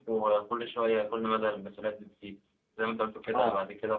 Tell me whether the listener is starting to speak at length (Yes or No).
No